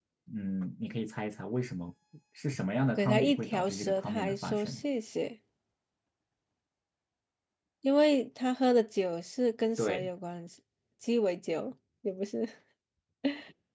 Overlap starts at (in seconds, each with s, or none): 3.0 s